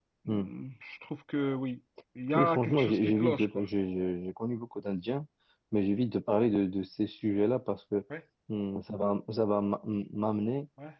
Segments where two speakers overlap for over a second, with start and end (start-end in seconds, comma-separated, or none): 2.4-3.7